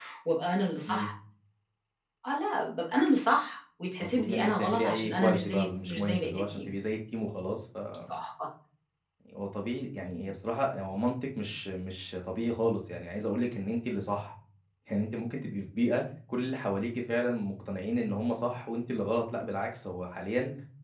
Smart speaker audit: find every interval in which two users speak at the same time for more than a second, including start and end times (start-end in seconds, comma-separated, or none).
4.0-6.7